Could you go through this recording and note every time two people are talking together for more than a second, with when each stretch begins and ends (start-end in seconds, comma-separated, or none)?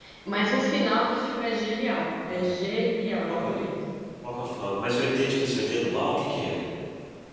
none